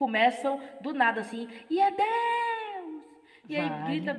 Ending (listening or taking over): listening